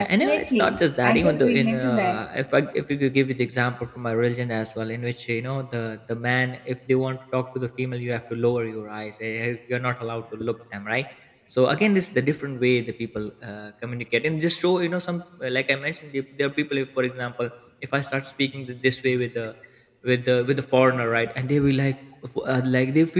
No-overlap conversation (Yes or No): No